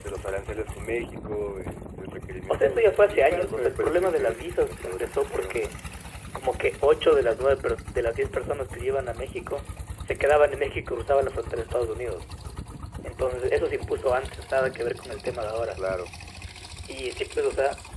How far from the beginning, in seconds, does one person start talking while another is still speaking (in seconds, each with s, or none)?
2.5 s